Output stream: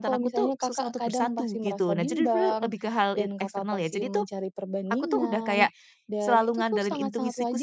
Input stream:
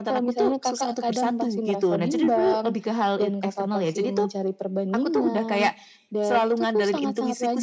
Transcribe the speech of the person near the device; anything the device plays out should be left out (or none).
none